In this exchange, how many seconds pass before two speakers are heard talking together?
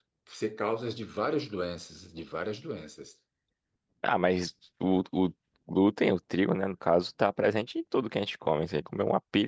none

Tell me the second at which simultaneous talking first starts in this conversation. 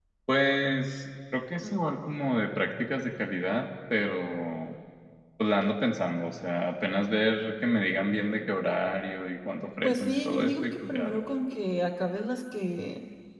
9.8 s

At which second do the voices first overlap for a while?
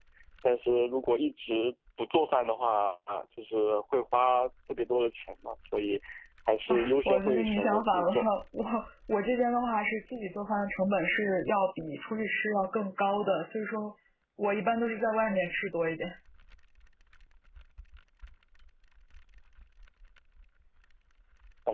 6.7 s

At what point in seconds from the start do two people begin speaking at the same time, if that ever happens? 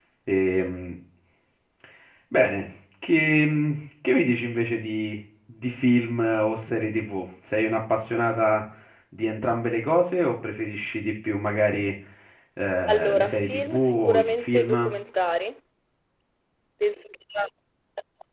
12.9 s

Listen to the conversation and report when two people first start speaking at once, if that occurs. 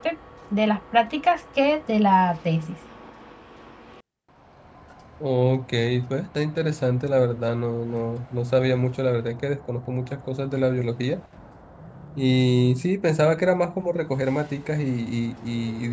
none

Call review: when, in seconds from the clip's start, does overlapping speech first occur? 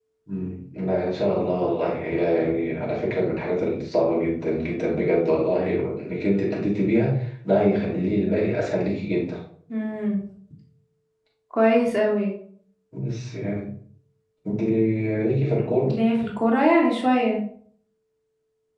none

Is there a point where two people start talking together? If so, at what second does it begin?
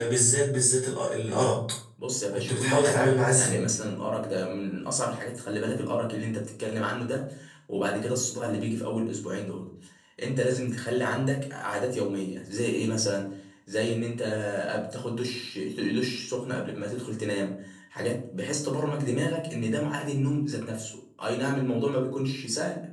2.3 s

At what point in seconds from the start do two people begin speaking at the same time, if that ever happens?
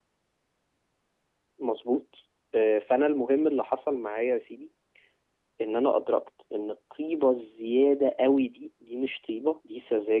none

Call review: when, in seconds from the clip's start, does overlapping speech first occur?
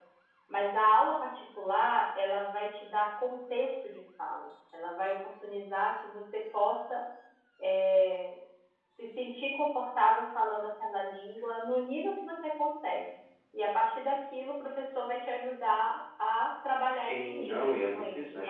16.9 s

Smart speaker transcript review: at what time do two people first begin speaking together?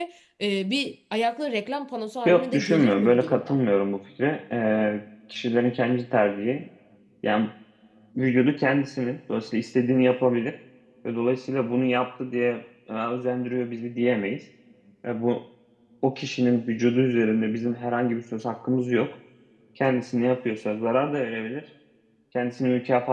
2.2 s

